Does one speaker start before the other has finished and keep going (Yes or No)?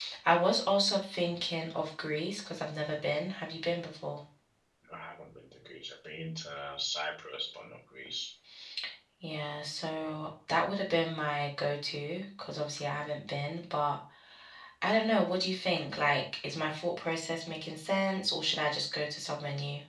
No